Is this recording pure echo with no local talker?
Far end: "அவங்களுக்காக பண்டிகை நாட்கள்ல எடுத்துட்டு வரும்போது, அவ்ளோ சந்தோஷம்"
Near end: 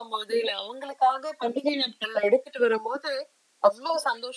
Yes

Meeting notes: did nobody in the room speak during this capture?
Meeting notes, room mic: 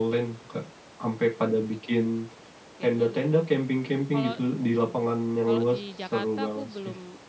No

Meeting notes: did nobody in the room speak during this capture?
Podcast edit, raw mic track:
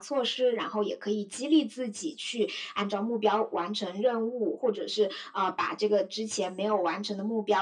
Yes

